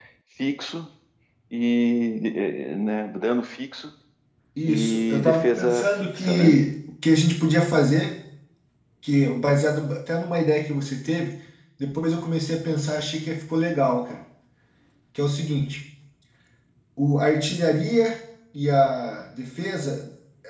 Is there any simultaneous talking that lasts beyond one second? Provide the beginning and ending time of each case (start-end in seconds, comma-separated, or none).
4.7-6.6